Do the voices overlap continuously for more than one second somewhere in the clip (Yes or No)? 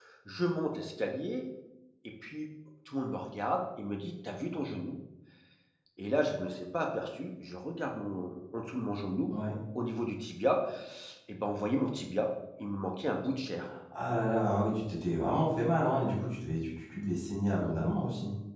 No